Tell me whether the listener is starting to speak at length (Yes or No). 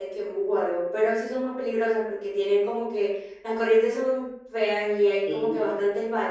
No